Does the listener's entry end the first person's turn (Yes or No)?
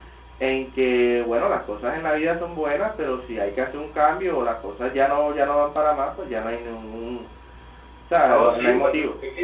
Yes